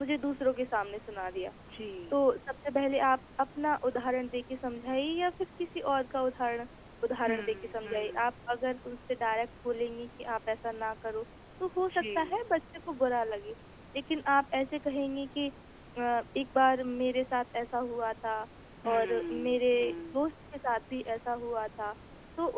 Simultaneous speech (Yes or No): Yes